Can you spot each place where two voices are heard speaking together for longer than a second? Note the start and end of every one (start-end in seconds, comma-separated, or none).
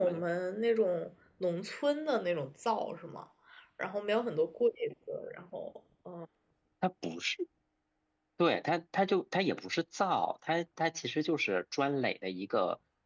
none